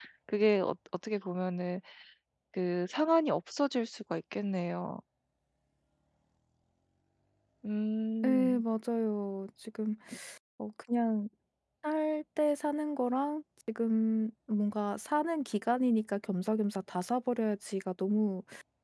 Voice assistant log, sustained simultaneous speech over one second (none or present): none